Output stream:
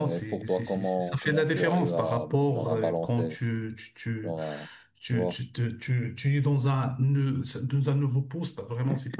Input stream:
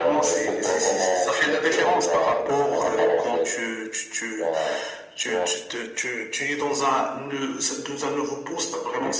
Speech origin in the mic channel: echo only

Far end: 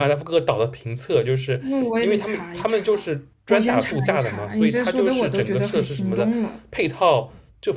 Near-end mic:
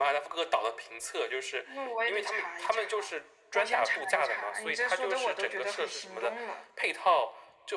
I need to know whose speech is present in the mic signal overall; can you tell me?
echo only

